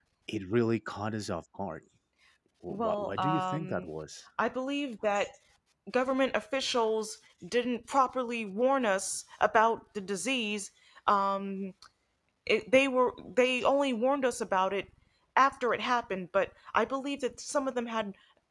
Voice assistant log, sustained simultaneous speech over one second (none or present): present